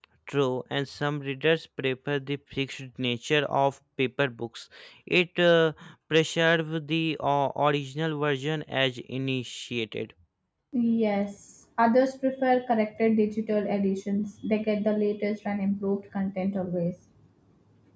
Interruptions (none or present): none